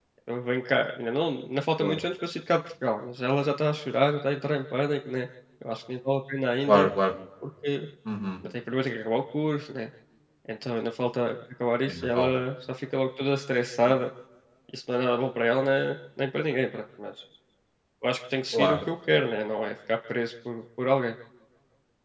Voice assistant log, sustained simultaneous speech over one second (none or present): none